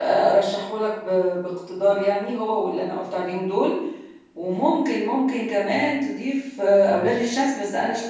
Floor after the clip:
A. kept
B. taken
A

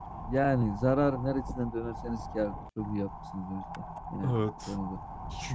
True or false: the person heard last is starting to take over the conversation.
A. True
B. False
A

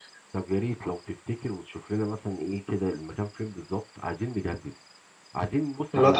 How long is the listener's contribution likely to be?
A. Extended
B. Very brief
B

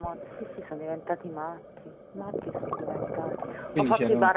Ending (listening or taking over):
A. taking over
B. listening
B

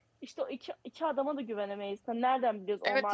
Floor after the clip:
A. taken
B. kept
A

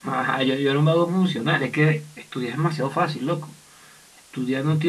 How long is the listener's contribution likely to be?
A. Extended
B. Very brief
B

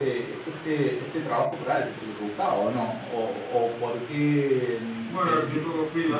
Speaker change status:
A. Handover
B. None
A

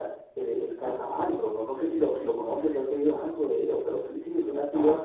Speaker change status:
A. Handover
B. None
A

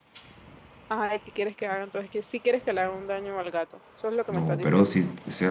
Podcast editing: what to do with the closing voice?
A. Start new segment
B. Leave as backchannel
A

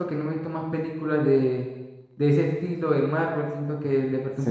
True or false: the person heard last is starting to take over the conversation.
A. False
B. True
A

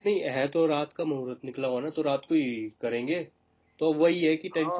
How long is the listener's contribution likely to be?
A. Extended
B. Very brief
B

